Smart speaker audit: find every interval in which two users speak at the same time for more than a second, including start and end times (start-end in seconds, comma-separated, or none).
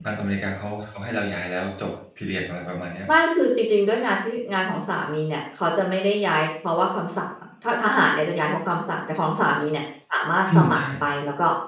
none